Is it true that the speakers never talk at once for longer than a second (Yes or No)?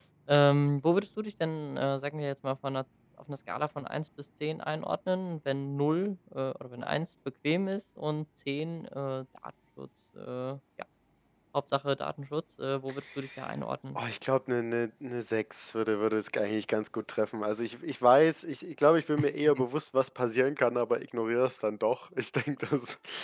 Yes